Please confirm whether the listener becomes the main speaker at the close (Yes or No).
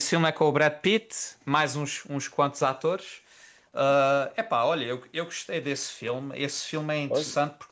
No